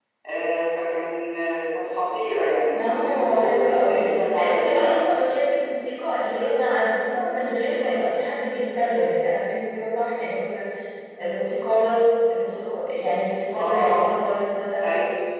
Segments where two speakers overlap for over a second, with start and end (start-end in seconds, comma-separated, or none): 2.7-5.0